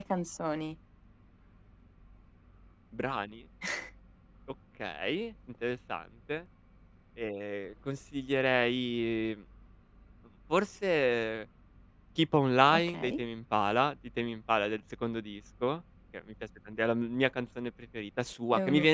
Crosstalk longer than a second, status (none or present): none